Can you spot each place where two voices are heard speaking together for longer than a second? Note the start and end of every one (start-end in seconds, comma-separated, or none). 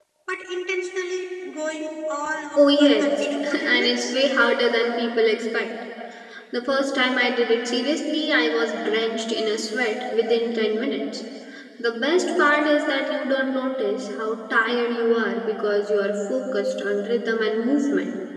2.8-4.1